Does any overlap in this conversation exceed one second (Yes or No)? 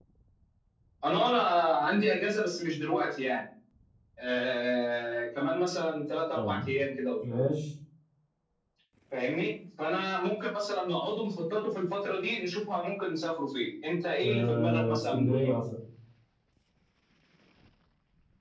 Yes